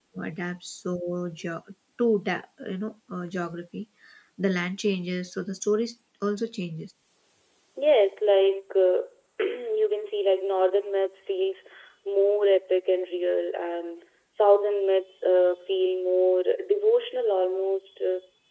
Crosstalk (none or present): none